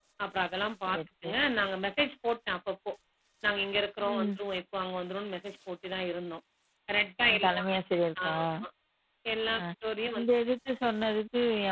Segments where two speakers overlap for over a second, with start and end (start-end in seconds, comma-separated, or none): none